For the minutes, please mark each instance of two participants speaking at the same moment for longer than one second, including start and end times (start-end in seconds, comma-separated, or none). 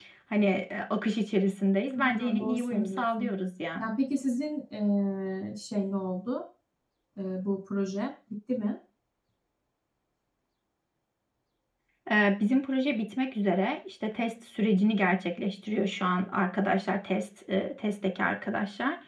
2.0-3.3